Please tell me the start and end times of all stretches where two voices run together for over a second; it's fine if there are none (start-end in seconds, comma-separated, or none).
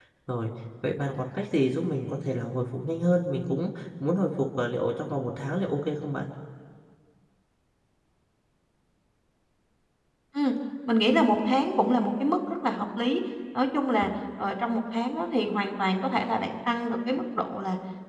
none